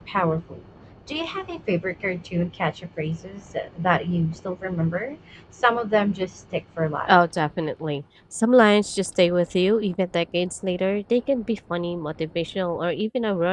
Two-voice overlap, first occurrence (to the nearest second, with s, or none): none